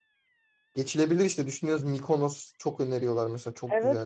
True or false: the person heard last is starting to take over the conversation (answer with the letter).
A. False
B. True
B